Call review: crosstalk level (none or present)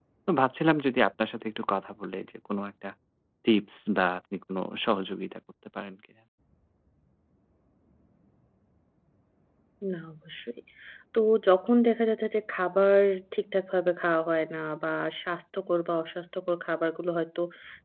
none